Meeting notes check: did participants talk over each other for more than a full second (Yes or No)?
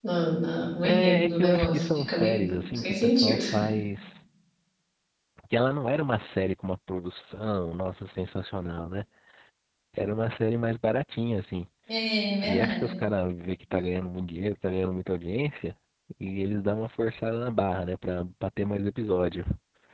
Yes